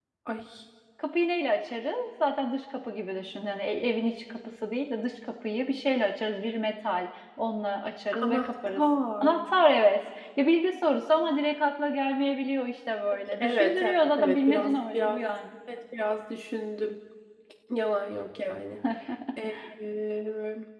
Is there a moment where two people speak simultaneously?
Yes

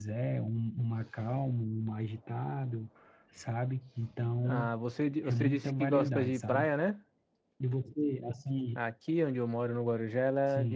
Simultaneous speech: Yes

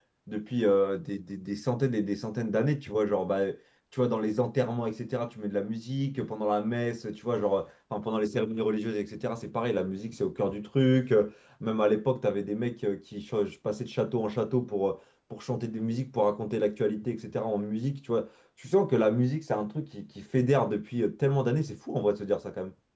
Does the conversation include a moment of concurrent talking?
No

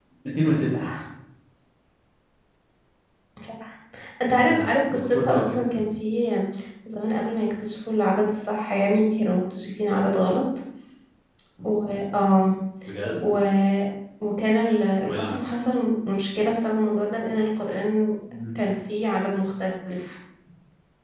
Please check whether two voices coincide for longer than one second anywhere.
Yes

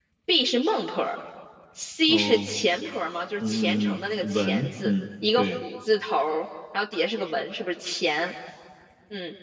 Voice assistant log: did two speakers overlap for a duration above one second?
Yes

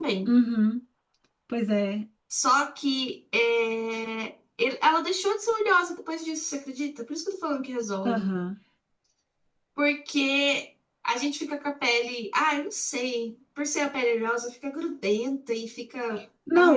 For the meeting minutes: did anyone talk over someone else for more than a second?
No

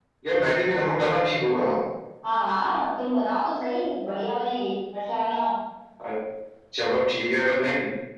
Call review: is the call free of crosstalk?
Yes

